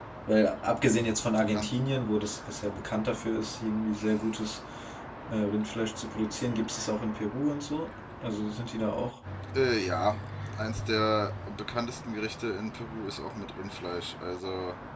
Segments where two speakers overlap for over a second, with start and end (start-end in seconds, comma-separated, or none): none